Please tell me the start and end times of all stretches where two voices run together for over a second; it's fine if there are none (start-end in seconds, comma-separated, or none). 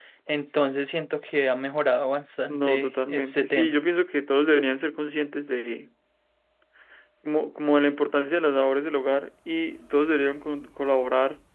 2.5-3.7